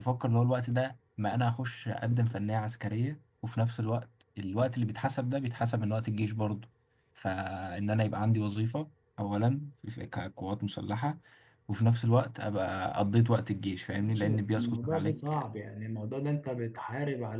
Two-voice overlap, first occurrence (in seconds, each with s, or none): 14.0 s